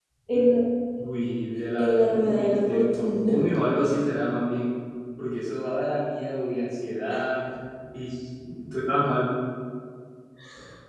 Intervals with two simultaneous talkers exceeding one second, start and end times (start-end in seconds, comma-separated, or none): 1.8-3.4